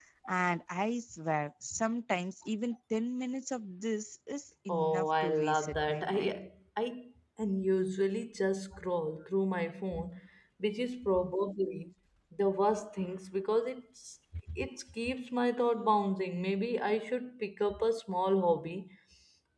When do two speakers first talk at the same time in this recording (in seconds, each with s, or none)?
4.7 s